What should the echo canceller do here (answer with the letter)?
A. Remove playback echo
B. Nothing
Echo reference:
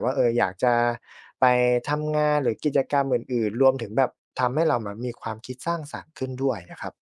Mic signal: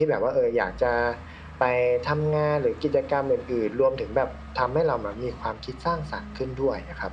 A